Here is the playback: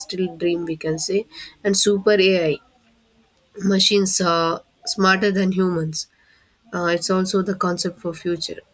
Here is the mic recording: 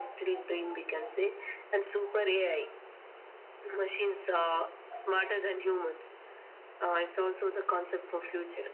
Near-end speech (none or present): none